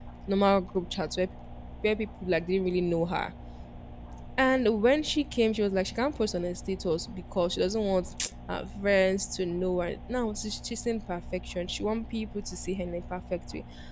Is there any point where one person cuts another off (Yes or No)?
No